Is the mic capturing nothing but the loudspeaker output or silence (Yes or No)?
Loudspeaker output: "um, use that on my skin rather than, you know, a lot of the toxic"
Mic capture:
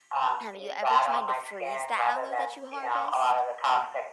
No